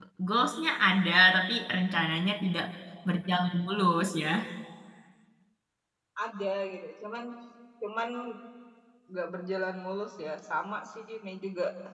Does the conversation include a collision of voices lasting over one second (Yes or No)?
No